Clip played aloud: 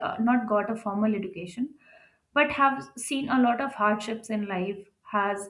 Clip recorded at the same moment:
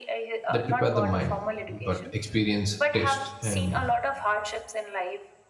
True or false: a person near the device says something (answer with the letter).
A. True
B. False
A